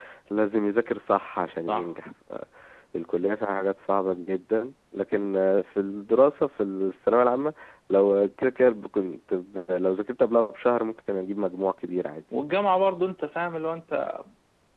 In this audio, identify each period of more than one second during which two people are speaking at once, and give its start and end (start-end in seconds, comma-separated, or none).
none